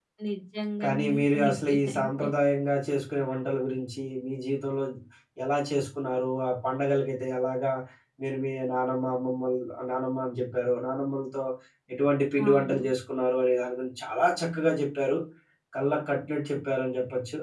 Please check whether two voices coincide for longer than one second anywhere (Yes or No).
Yes